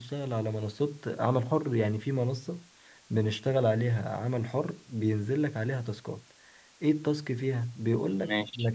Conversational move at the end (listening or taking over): listening